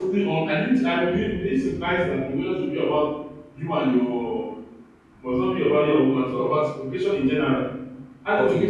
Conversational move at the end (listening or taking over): taking over